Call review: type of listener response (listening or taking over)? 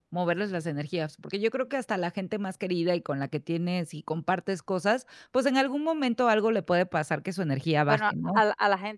taking over